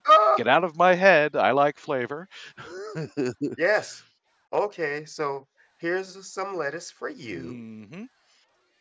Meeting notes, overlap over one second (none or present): none